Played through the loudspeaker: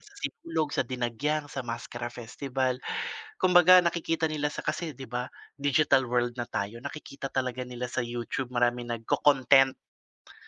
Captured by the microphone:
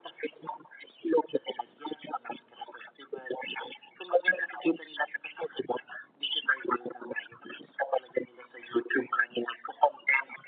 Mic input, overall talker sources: echo only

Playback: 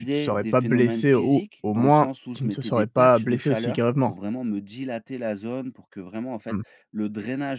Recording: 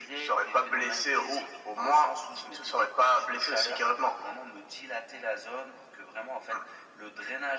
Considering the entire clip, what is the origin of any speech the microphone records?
echo only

